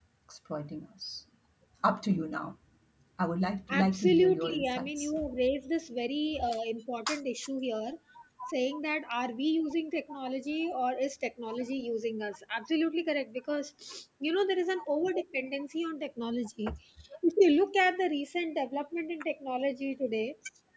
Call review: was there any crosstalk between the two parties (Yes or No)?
Yes